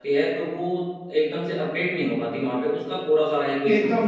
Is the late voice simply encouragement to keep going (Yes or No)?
No